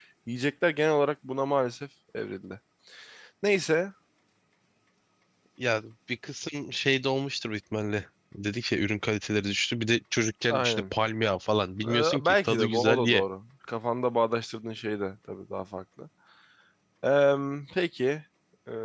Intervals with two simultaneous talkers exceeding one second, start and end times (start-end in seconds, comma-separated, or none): 11.8-13.2